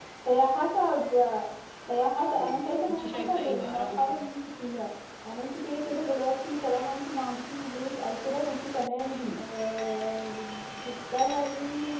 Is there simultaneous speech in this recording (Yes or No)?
Yes